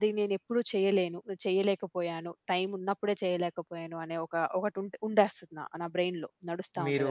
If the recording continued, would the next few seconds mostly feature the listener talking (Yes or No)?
Yes